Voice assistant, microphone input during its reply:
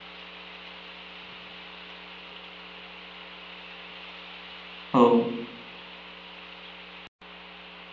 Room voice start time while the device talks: 4.9 s

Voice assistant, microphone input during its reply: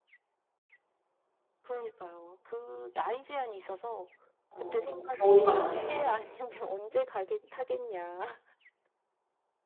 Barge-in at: 4.5 s

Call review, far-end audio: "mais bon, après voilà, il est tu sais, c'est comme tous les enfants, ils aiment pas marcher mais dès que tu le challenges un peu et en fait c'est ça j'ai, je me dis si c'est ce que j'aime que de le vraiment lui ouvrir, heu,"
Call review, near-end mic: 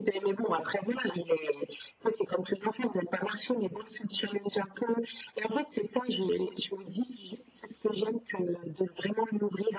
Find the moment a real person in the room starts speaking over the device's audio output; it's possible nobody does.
none

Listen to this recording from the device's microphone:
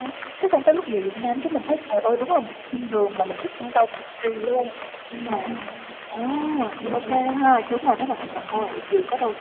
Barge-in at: 5.1 s

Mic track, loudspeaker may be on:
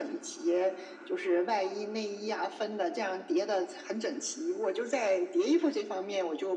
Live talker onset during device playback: none

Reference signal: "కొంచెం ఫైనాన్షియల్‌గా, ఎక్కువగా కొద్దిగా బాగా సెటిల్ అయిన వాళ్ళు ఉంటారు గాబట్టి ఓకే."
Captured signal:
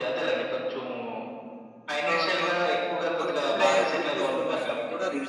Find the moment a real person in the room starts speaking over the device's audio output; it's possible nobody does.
2.1 s

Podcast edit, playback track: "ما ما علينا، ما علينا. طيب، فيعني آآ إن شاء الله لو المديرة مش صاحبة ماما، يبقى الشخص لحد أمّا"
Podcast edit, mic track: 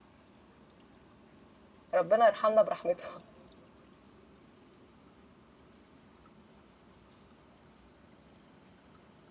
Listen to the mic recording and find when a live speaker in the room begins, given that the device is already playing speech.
1.9 s

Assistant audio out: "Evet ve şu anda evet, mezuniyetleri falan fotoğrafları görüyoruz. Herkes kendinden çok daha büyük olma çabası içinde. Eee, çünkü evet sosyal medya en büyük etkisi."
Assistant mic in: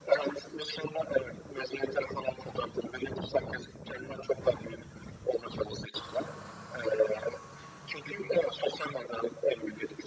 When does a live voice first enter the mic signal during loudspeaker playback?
none

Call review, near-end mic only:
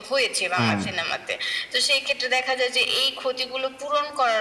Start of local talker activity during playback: 0.6 s

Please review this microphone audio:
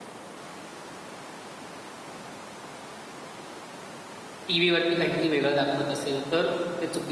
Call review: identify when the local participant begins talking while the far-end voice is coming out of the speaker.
4.5 s

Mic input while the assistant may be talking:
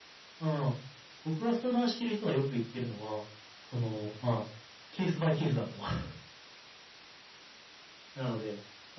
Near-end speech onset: none

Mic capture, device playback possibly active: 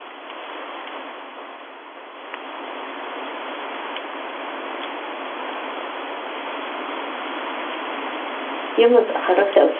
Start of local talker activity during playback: 8.8 s

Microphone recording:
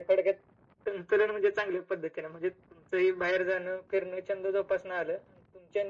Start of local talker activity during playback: none

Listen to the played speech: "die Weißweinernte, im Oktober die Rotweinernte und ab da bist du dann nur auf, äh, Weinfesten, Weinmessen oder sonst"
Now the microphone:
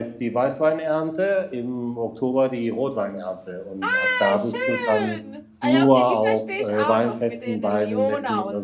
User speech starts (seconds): 3.8 s

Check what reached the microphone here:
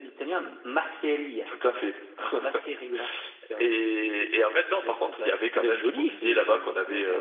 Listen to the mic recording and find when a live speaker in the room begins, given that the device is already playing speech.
5.5 s

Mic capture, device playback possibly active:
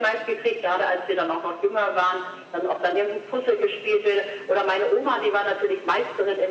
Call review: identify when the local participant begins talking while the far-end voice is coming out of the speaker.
none

